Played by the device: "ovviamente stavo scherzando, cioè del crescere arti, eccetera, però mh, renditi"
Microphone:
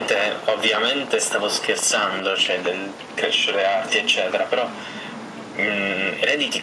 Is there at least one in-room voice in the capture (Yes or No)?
No